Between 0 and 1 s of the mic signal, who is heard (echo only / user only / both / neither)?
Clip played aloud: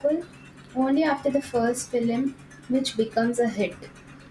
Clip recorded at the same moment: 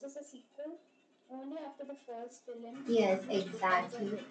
echo only